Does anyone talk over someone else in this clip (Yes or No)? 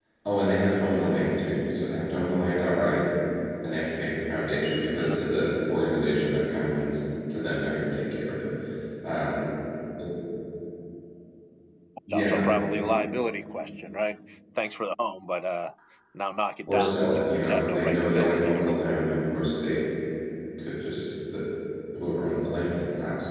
Yes